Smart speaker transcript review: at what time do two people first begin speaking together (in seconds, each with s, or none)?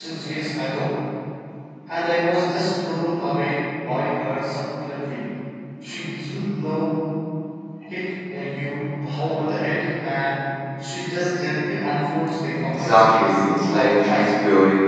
12.6 s